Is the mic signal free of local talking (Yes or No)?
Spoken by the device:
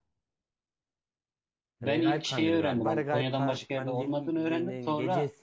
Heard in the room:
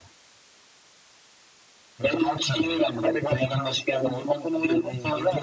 Yes